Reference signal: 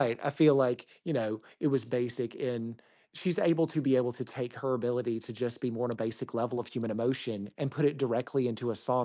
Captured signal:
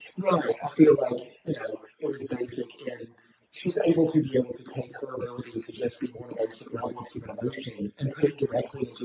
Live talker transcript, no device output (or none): none